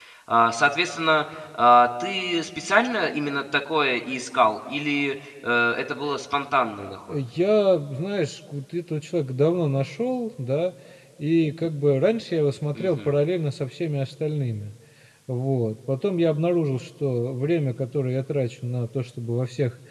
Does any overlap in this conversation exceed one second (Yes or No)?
No